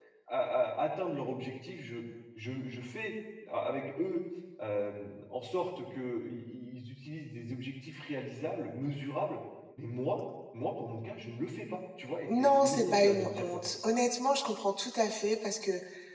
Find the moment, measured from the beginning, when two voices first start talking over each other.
12 s

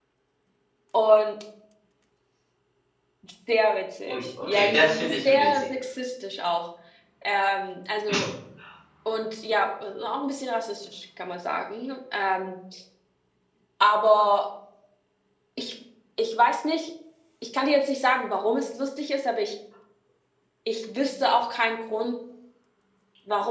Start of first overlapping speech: 4 s

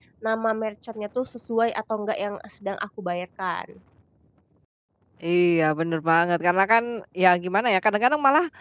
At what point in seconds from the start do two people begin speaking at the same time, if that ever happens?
none

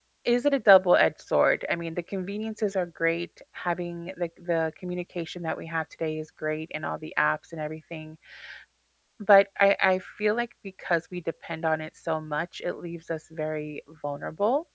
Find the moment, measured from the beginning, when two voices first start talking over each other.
none

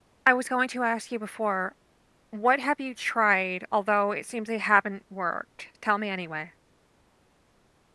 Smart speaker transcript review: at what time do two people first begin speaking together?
none

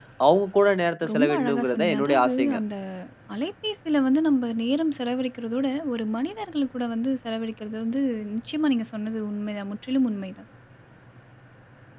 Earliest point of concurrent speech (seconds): 1 s

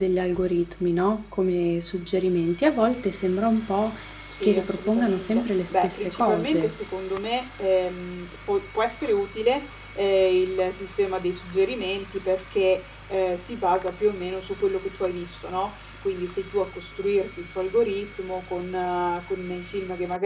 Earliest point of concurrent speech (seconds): 4 s

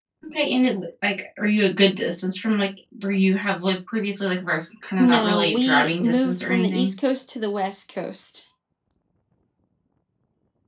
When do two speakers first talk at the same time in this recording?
5 s

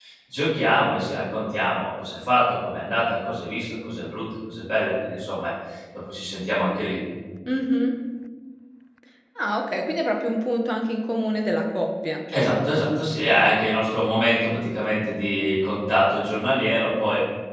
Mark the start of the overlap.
none

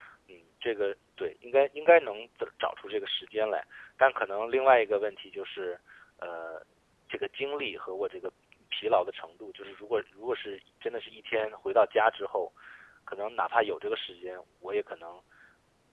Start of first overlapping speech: none

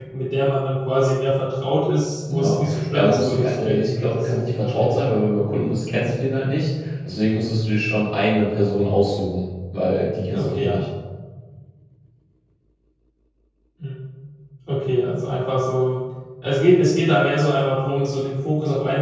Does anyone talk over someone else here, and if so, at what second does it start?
2 s

